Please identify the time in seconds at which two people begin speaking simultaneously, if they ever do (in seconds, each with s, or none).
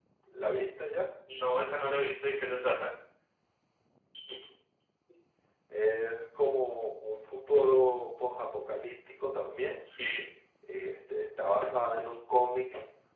none